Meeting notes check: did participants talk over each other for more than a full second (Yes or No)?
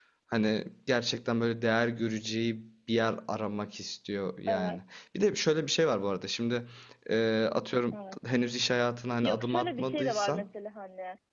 Yes